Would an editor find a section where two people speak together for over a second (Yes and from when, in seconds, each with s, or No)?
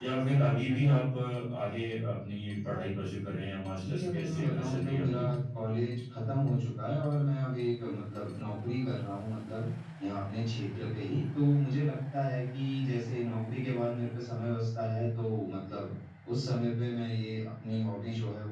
Yes, from 3.7 s